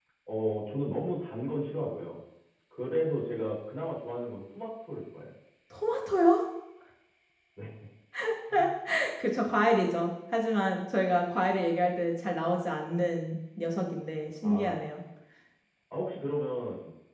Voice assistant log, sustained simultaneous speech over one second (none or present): none